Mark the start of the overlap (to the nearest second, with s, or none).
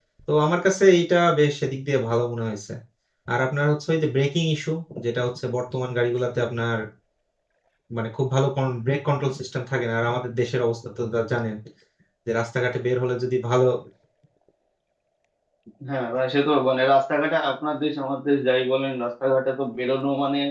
none